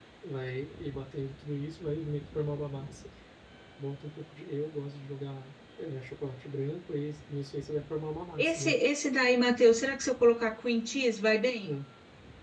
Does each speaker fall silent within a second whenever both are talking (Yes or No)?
Yes